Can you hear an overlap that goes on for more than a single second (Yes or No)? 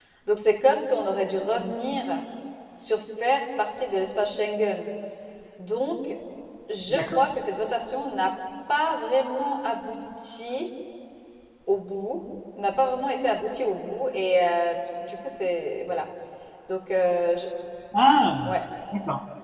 No